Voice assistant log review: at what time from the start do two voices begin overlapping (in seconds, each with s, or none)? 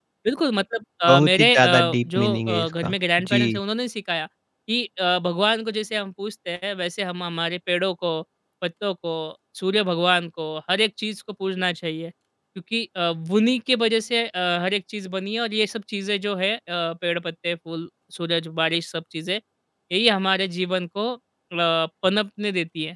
1.1 s